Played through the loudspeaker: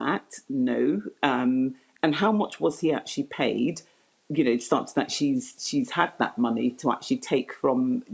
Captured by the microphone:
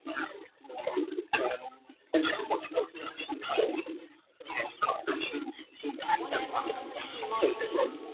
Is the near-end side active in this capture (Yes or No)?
Yes